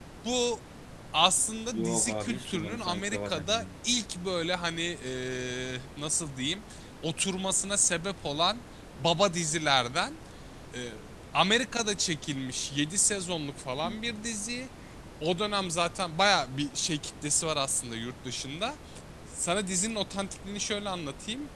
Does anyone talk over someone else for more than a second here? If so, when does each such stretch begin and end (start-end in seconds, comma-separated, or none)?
1.7-3.6